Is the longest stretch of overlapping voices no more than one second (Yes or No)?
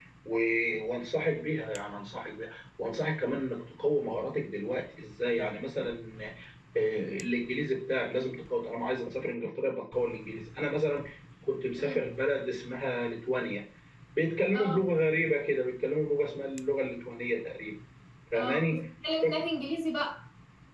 Yes